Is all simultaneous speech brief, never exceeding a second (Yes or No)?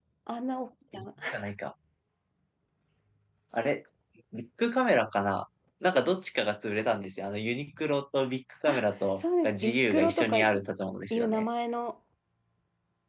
No